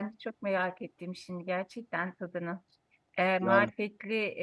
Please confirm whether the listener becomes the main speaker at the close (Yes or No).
No